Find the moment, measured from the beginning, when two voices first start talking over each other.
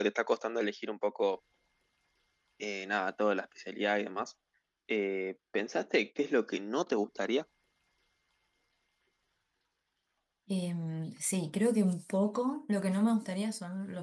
none

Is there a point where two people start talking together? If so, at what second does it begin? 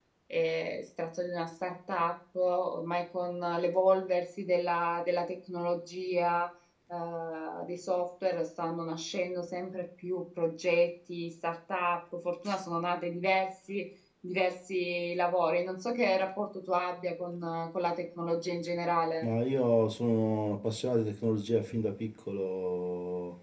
none

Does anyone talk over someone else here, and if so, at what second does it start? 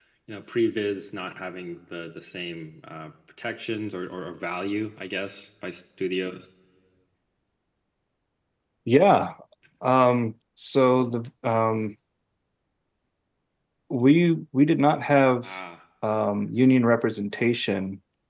none

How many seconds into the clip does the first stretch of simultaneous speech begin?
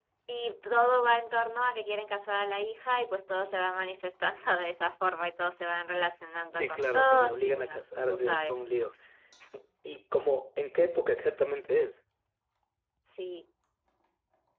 7 s

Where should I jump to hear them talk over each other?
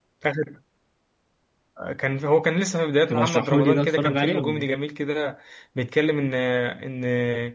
3 s

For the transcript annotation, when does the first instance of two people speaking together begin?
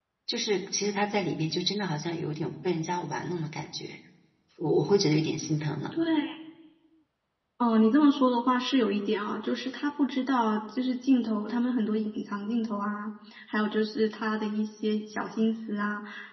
none

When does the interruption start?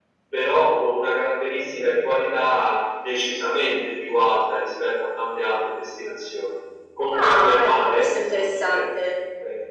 7 s

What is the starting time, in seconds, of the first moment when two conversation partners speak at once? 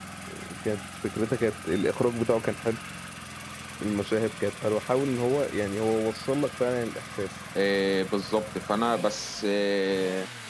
none

